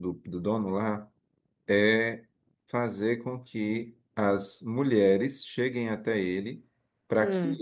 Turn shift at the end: No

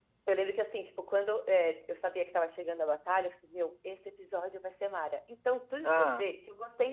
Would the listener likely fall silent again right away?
Yes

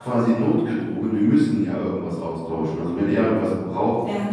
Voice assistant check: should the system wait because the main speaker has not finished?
Yes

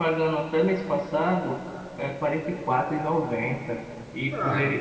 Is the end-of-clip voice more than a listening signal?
No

